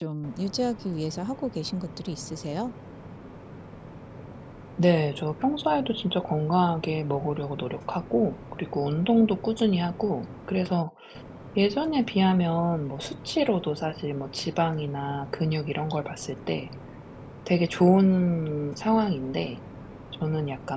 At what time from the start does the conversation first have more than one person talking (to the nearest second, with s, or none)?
none